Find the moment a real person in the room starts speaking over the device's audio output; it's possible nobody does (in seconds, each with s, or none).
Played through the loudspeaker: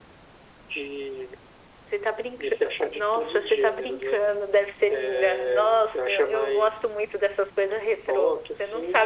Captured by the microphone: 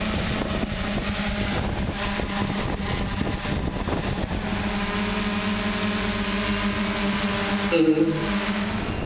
7.7 s